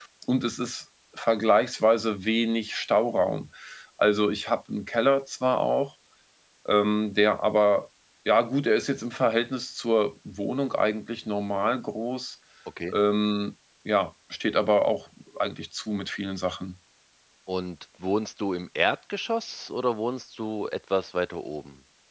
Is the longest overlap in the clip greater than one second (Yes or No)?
No